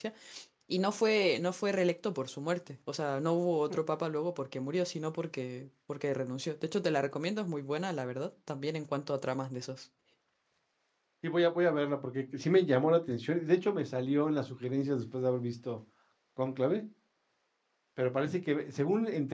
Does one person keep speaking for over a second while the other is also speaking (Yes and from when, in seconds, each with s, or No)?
No